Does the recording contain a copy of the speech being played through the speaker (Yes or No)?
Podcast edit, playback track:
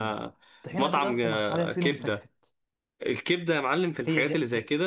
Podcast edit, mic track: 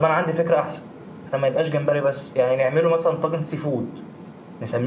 No